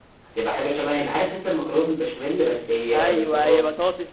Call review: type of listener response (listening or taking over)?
taking over